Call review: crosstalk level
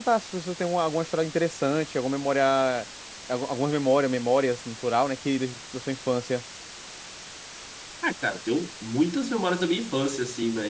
none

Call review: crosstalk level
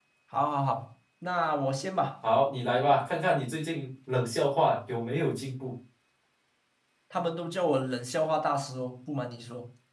none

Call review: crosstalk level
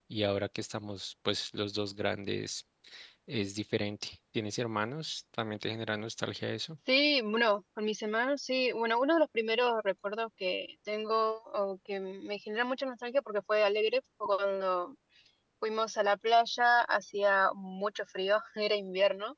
none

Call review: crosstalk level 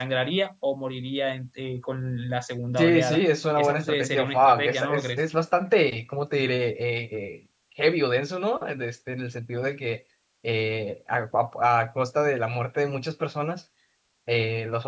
present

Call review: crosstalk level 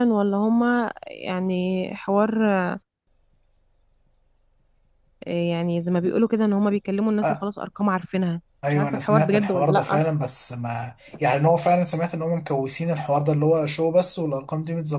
present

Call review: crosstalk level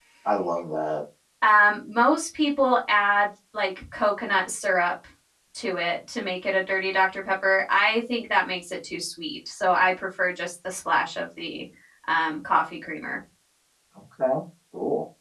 none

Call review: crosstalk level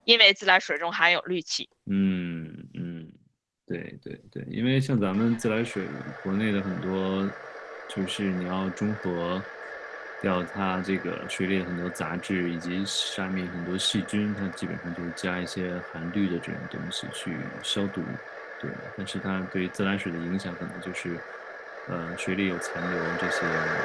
none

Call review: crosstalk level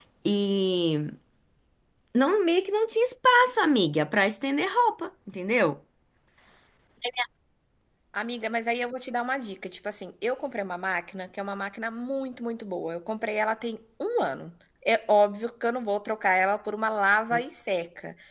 none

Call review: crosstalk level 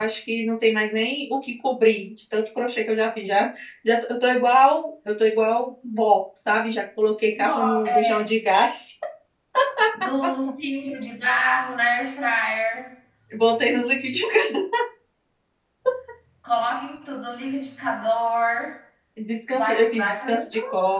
present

